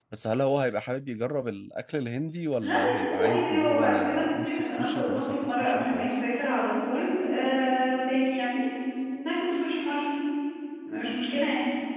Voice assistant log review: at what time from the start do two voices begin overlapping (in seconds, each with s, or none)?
2.6 s